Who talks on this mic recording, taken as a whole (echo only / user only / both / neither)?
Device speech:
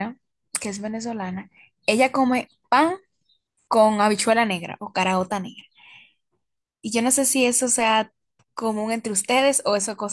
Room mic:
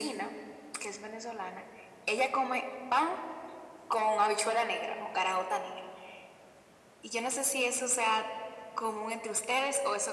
echo only